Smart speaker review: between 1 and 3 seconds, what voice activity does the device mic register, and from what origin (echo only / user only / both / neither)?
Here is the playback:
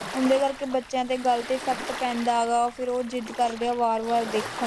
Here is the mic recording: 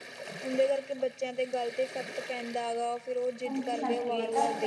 echo only